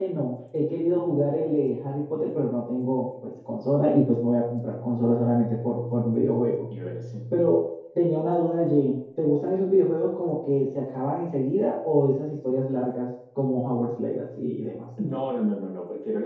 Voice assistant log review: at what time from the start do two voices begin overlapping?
none

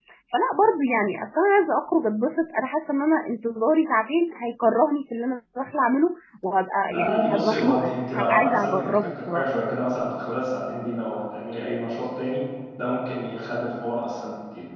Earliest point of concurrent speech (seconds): 6.9 s

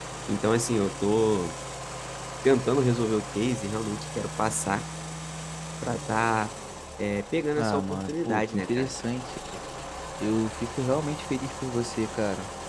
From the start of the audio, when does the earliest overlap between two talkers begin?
7.6 s

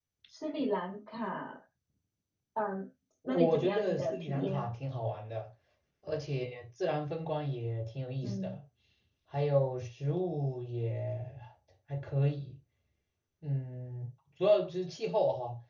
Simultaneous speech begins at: 3.3 s

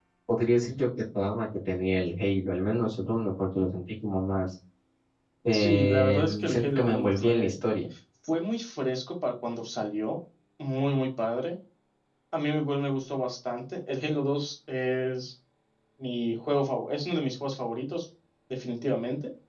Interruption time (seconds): 5.5 s

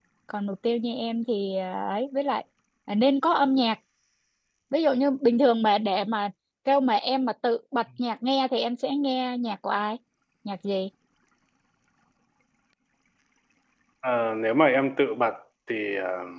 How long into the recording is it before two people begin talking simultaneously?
none

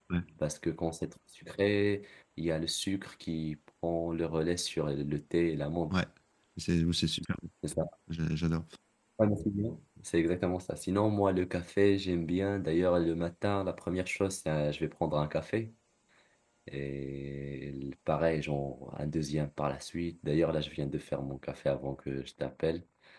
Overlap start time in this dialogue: none

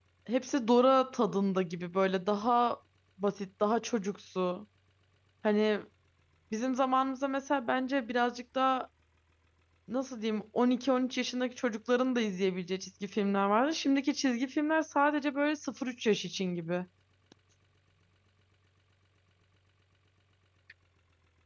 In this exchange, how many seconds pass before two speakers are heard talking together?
none

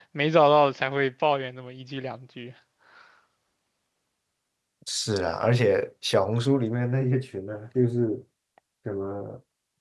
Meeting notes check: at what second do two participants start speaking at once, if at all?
none

